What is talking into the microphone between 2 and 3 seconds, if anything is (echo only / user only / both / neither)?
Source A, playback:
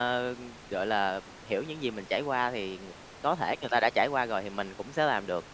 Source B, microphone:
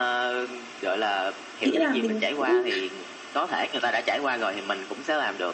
both